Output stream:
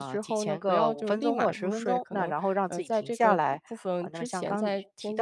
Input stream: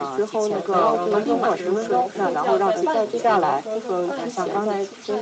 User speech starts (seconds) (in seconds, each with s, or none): 0.5 s